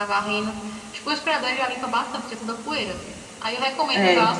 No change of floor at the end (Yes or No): Yes